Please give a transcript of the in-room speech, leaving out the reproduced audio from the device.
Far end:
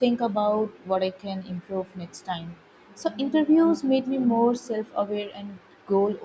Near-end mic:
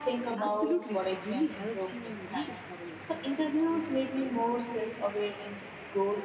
Absolutely, it it really helps you rediscover yourself.

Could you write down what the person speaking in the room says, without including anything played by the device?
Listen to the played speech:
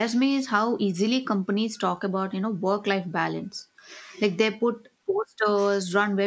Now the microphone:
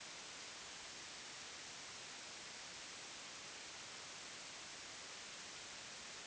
none

